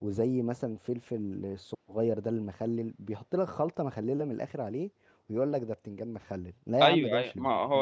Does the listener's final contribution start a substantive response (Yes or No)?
Yes